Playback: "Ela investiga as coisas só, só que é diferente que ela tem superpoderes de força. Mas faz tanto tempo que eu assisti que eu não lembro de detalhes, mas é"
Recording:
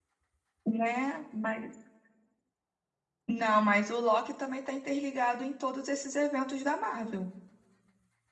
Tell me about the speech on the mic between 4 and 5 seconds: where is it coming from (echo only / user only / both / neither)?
user only